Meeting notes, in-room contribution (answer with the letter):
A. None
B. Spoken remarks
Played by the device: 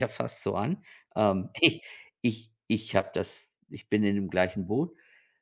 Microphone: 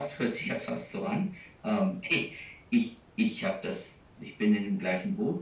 A